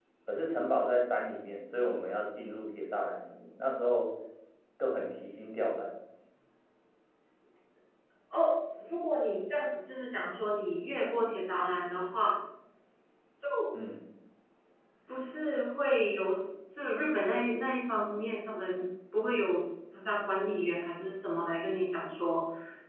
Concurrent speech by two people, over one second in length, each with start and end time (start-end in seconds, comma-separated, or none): none